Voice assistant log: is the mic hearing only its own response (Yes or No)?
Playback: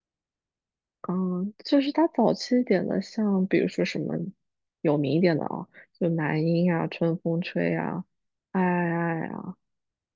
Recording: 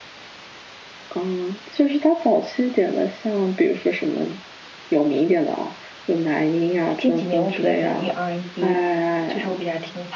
No